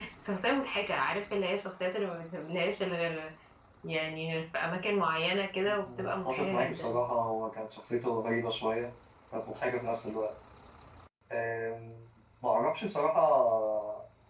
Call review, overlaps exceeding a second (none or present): present